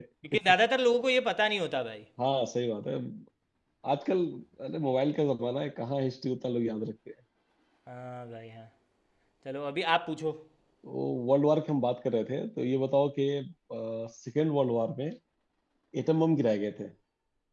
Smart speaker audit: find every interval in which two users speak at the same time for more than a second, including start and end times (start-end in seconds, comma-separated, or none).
none